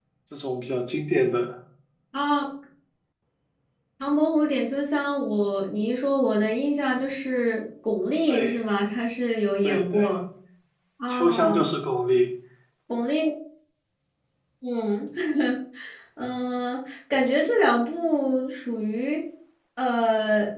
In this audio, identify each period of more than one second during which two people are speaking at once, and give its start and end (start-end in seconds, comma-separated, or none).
none